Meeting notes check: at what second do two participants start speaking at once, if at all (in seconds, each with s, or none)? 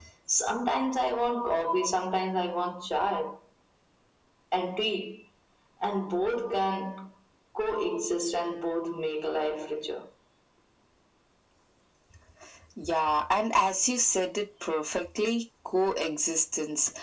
none